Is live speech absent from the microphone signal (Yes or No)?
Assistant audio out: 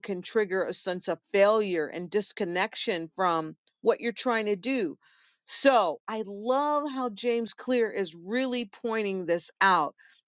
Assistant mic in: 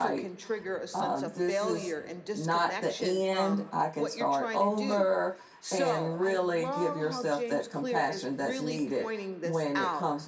No